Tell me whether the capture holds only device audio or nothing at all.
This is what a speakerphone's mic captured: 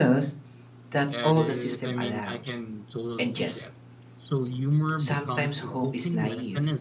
No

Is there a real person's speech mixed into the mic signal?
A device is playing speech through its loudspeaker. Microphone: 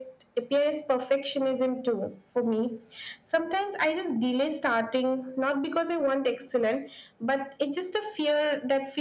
No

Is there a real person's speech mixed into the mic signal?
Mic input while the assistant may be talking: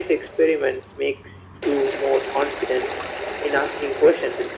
No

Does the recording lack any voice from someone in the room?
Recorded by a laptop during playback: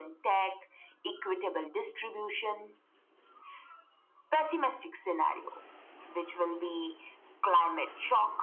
Yes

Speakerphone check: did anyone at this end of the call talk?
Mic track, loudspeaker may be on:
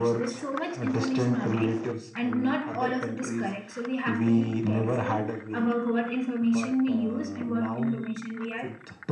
No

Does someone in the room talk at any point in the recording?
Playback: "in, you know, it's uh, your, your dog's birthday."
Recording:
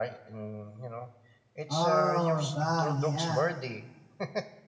Yes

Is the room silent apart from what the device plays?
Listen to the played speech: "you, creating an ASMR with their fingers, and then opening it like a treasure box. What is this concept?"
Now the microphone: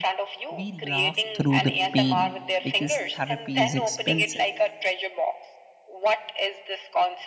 No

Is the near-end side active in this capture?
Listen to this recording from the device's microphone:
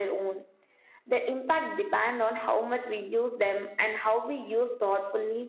No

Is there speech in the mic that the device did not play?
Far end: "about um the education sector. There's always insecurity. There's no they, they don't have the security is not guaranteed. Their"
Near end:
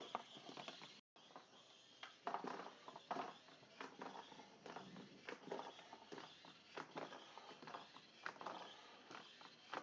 No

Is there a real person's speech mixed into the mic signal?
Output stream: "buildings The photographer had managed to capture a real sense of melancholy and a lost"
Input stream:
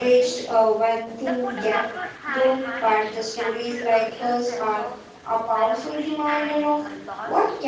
Yes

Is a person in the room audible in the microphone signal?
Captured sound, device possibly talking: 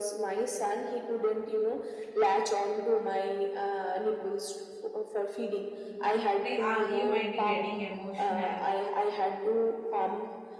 Yes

